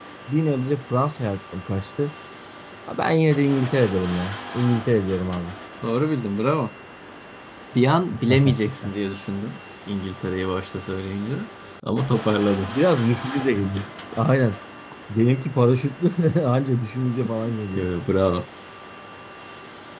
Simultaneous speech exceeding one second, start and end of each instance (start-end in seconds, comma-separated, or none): none